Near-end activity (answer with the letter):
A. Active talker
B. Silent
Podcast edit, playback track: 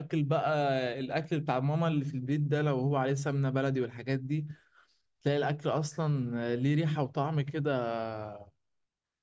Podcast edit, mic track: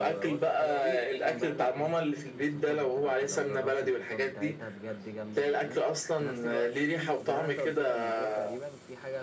A